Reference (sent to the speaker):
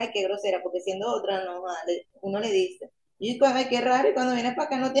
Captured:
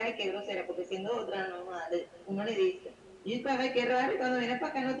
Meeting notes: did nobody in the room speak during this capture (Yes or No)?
Yes